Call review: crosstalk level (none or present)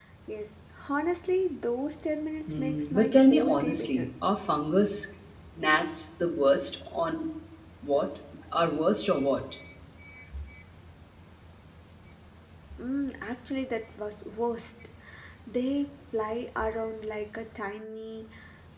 present